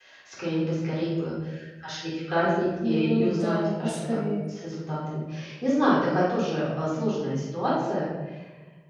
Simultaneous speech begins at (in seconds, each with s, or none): 2.8 s